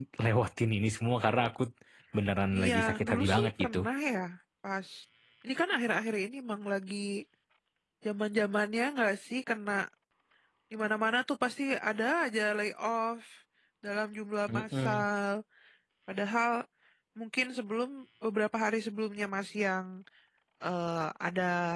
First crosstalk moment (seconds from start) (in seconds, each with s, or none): 2.6 s